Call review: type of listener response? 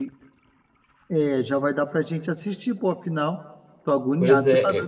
taking over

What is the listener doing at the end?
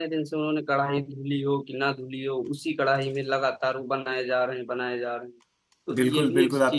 taking over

